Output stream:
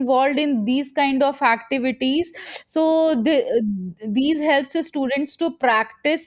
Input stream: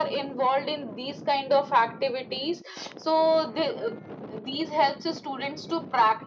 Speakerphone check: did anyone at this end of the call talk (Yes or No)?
No